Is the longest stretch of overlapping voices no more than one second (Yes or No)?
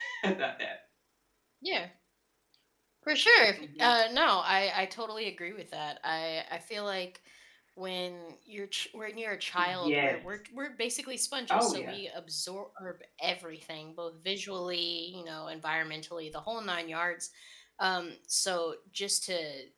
Yes